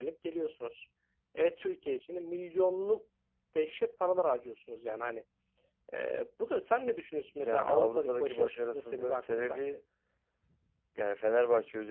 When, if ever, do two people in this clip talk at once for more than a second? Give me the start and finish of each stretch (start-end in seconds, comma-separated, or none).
7.4-9.6